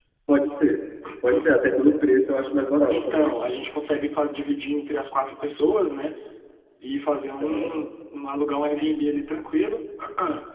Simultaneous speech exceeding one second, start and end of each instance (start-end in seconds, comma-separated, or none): none